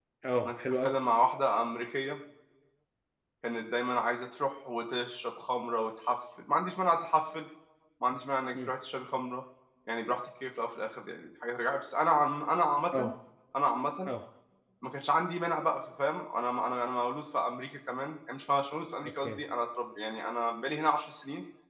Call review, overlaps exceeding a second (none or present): none